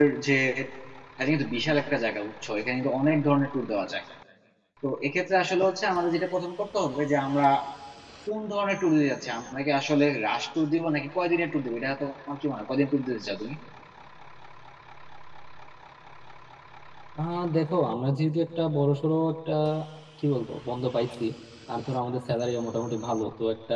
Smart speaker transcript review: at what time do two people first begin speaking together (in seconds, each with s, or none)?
none